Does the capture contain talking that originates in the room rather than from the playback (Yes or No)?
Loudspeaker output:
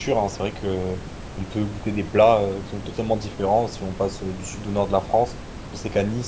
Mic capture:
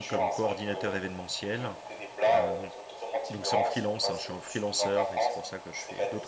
Yes